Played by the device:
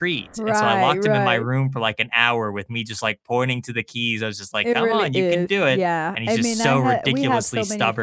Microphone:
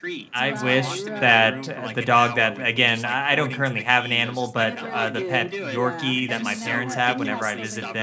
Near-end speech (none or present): present